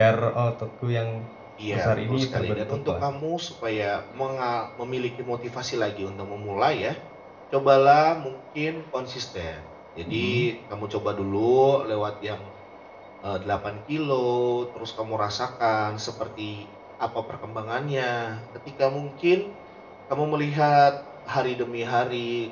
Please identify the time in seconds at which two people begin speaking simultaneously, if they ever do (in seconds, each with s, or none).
1.7 s